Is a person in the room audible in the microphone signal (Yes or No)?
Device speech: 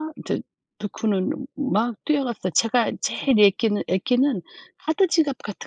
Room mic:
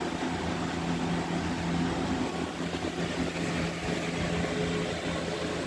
No